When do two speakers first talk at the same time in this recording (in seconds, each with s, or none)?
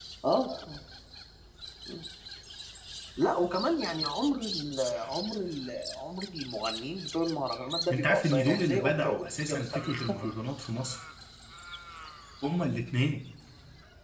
7.9 s